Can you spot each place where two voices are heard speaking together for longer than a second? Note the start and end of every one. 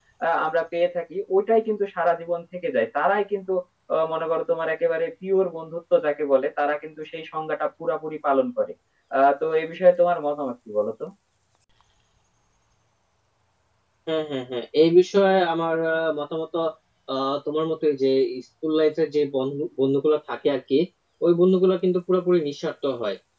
none

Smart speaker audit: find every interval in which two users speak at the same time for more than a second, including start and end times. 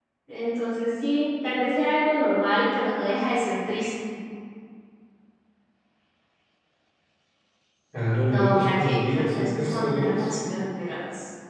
8.3-10.3

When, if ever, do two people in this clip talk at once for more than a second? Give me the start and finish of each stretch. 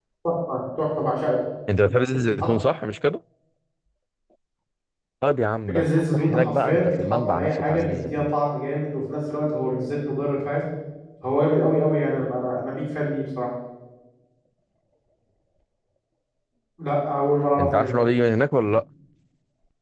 5.7-8.2

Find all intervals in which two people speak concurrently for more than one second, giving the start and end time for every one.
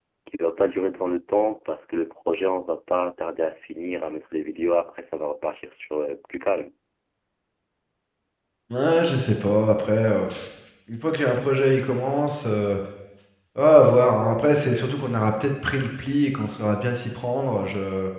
none

